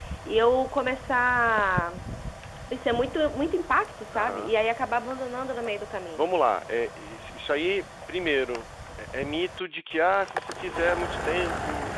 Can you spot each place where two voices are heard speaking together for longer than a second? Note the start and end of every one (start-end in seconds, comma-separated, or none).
none